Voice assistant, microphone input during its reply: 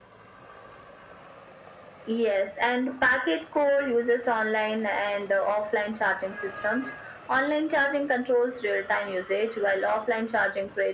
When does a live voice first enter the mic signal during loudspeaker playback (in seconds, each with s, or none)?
none